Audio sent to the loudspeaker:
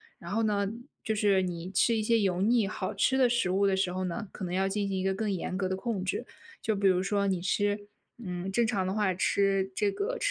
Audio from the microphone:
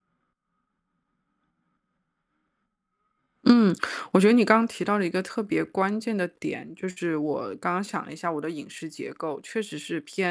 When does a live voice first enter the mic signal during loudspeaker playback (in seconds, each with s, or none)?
3.5 s